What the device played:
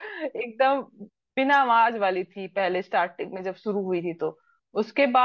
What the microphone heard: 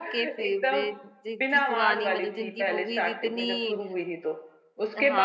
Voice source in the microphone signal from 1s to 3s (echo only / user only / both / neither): both